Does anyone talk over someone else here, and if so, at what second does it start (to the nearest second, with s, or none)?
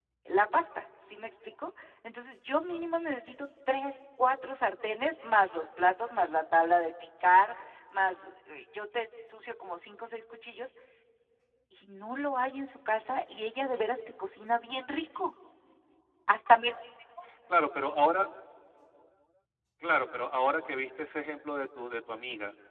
none